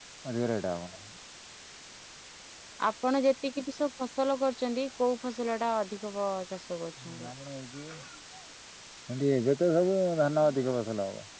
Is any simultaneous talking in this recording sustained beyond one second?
No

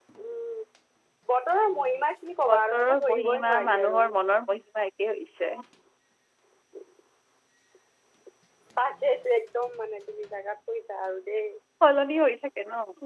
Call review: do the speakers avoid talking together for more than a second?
No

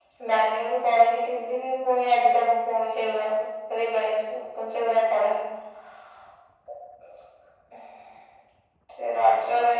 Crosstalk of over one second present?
No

